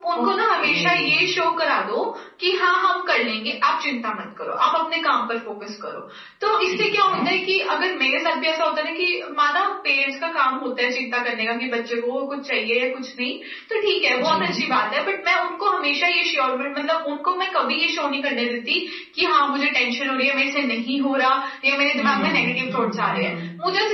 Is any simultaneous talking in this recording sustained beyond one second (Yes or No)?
Yes